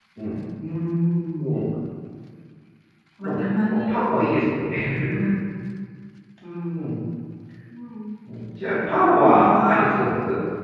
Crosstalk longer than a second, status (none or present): present